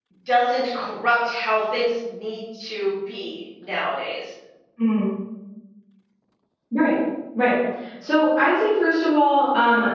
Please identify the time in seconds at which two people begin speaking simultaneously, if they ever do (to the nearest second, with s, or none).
none